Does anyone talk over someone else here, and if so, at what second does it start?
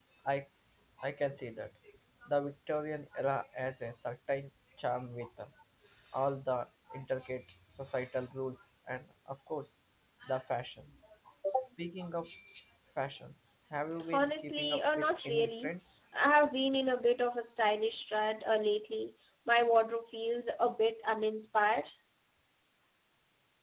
14.1 s

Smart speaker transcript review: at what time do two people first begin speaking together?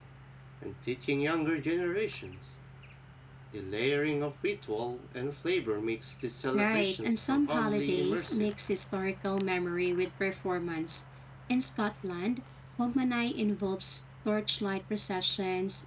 6.5 s

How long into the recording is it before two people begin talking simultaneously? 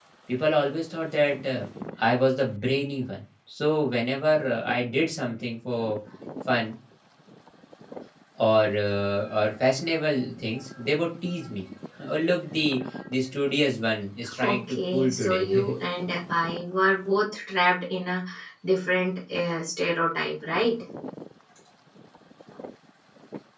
14.2 s

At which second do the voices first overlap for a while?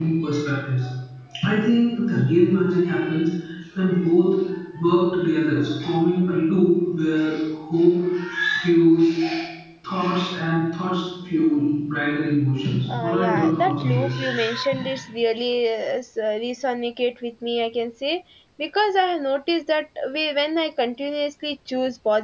12.9 s

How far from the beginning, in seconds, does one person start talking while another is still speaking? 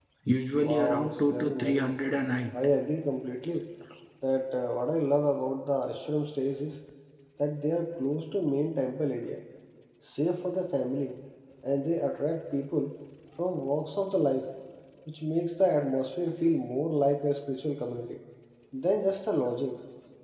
0.6 s

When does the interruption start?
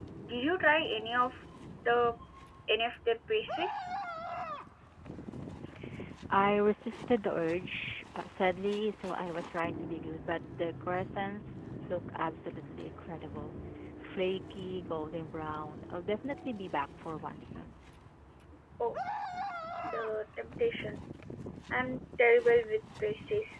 none

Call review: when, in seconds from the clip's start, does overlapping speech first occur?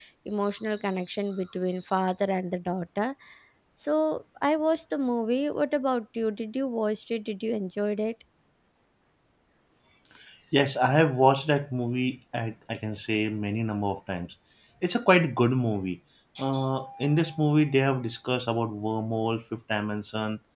none

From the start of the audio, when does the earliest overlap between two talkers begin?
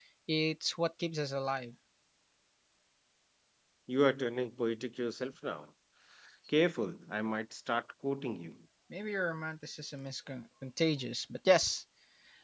none

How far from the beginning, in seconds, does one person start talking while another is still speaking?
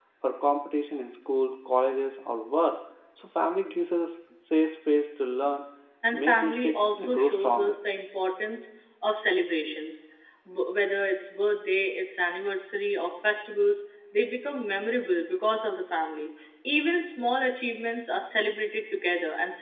6.1 s

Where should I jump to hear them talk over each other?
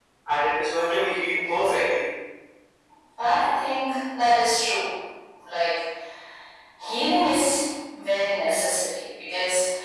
none

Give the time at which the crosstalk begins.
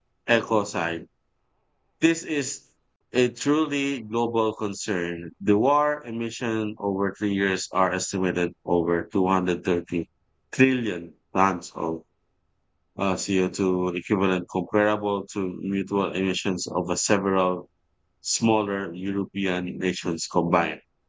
none

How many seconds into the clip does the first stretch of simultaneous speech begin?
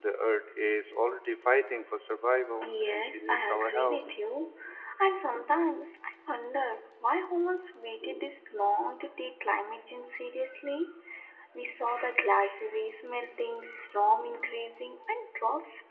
2.6 s

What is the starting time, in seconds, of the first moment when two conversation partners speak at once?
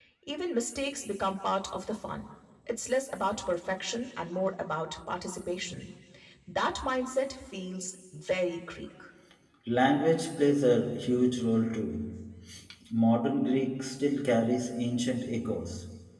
none

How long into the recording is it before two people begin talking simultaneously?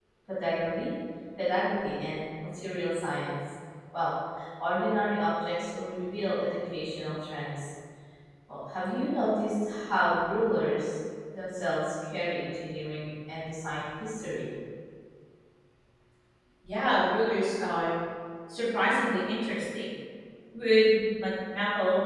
none

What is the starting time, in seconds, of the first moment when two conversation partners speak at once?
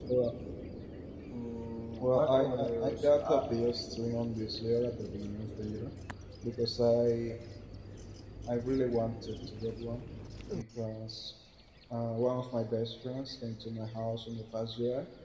2.0 s

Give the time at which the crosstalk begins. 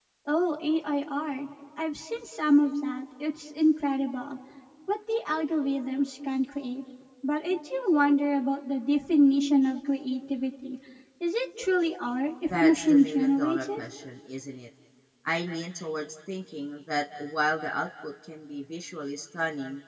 12.5 s

